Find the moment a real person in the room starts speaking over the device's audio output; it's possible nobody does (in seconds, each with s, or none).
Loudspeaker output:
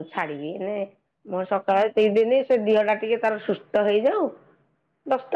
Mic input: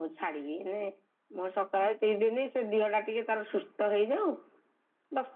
none